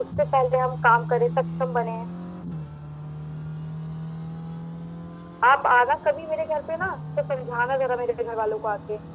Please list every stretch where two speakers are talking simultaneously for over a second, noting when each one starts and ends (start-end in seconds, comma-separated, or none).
none